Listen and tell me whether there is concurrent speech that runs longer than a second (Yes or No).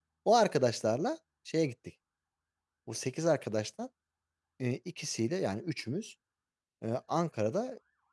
No